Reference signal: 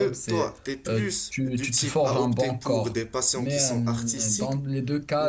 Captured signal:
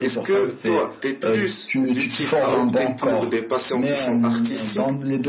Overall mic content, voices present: echo only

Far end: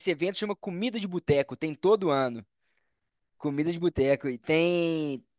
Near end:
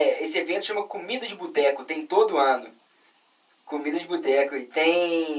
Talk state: echo only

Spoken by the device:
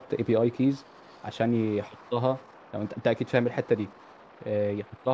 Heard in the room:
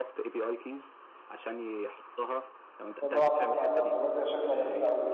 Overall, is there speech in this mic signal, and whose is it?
both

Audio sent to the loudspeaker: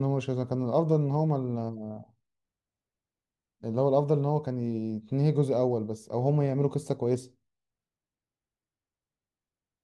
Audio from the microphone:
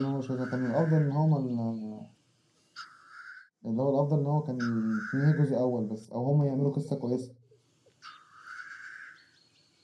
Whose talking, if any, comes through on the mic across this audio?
echo only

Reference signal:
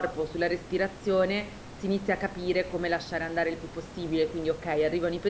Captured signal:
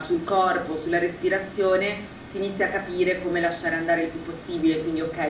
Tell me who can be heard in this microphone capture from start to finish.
echo only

